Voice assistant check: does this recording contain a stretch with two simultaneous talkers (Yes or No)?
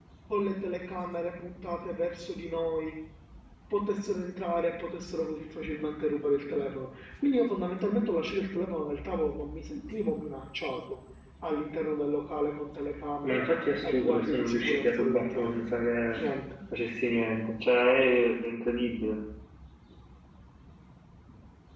Yes